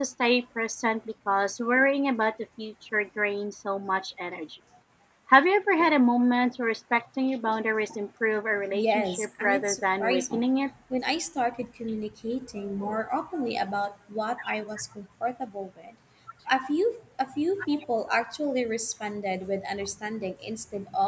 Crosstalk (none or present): present